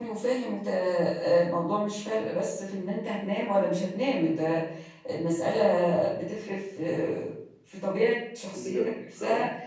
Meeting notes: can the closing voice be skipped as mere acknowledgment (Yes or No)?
Yes